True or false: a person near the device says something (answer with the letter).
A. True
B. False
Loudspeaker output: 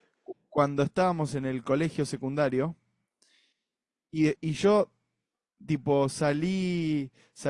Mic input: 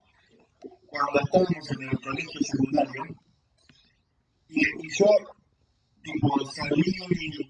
B